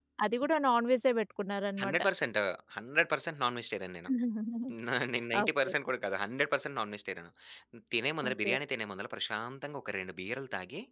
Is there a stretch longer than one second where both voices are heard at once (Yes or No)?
No